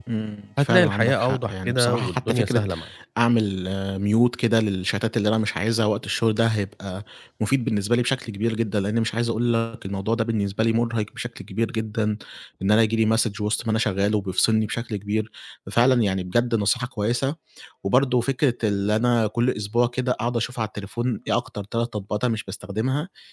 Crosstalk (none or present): present